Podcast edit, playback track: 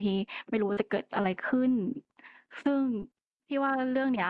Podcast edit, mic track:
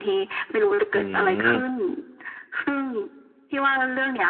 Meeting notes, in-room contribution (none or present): present